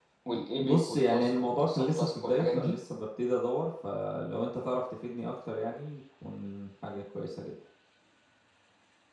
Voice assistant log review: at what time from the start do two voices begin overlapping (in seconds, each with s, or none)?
0.6 s